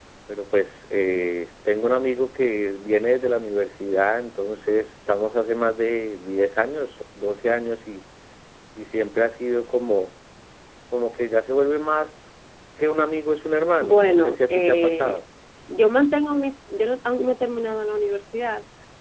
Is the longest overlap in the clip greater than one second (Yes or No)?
Yes